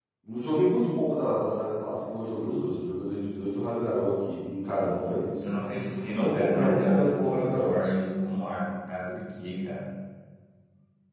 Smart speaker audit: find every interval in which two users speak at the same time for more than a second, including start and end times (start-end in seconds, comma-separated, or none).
6.1-7.8